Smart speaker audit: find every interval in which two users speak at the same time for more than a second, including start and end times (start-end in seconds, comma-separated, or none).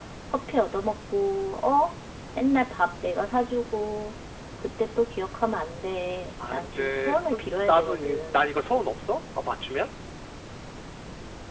6.4-8.4